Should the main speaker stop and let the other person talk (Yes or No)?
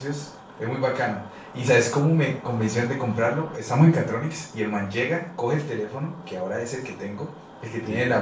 No